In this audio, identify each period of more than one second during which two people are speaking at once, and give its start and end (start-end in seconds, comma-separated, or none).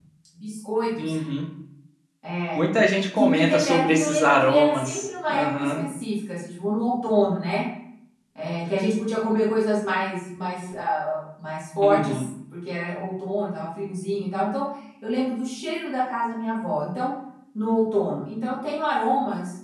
3.2-5.8